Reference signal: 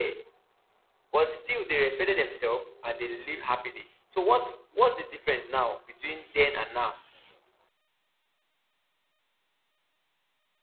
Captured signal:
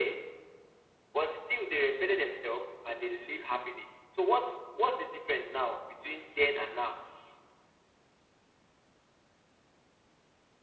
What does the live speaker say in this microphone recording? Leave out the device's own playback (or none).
none